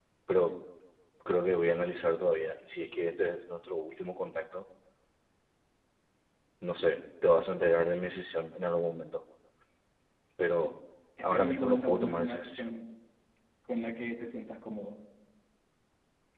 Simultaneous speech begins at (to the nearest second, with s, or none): 11 s